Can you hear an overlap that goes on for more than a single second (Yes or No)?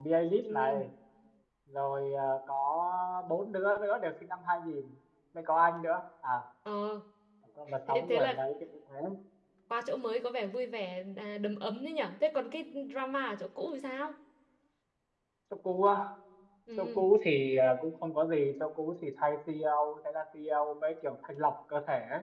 No